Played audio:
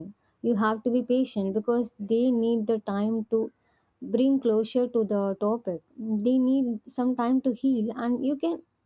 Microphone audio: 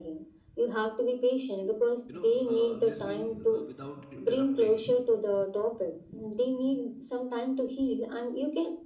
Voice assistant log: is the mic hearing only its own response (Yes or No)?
No